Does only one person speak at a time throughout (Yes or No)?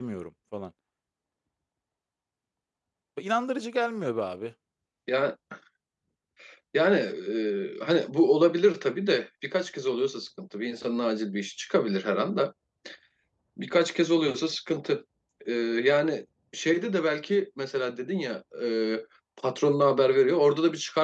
Yes